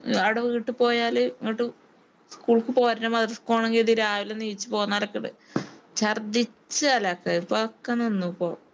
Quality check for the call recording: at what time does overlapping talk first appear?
none

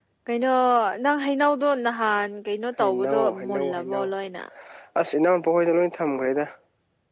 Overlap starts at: 3 s

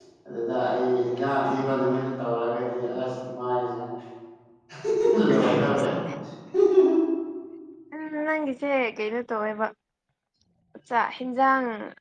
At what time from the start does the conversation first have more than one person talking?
none

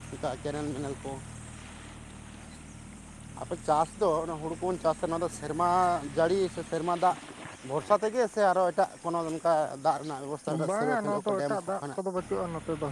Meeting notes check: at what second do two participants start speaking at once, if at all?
11 s

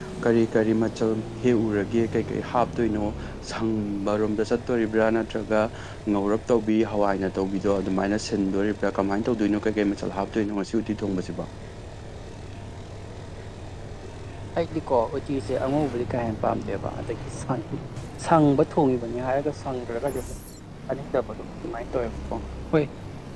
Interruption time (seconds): none

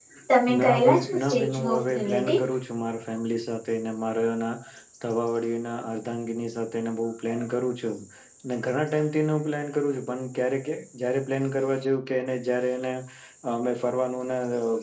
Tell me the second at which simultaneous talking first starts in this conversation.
1 s

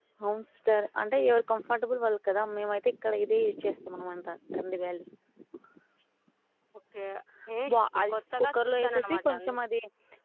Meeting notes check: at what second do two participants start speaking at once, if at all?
8 s

